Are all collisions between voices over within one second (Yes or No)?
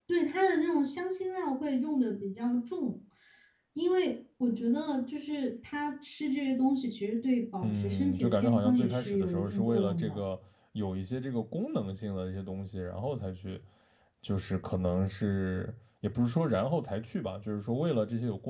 No